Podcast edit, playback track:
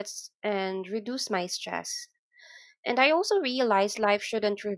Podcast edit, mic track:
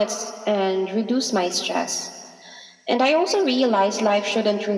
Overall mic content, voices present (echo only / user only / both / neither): echo only